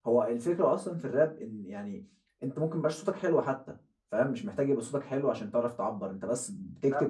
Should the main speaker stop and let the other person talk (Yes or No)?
No